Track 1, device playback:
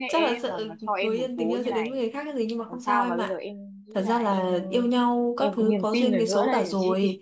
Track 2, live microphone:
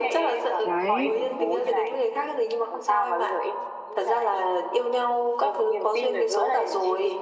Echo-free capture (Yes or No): No